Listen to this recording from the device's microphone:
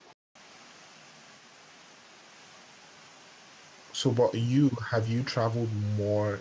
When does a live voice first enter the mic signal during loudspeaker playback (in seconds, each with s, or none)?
3.9 s